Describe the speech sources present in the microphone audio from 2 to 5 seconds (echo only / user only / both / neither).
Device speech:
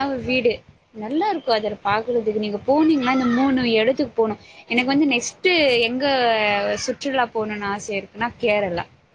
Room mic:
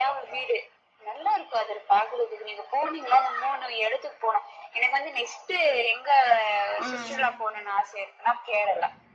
echo only